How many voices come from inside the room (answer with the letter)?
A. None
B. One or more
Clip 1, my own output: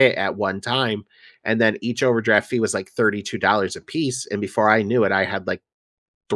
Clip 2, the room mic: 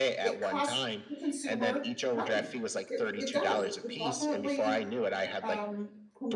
B